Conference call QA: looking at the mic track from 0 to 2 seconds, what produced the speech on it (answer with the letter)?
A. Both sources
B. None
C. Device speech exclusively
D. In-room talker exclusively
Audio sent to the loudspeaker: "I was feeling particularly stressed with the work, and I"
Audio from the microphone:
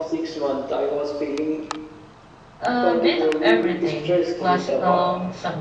C